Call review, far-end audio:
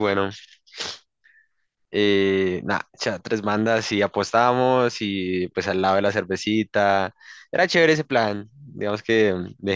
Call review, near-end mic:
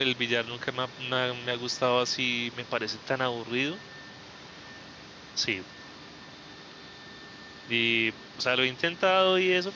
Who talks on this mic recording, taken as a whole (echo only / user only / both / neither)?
user only